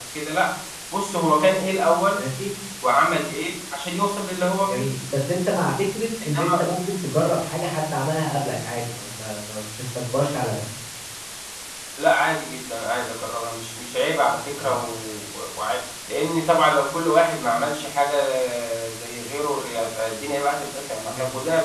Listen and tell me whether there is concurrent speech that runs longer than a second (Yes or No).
No